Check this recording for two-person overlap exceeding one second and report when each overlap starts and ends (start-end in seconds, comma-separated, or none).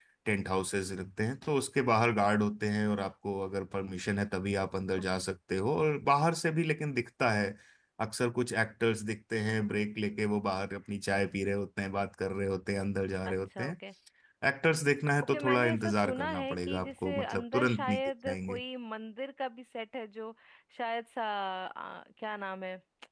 15.2-18.6